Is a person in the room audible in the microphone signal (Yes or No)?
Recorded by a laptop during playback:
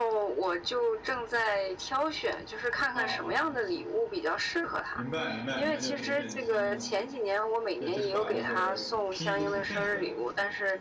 Yes